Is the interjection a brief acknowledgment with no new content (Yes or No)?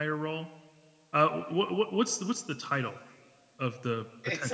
No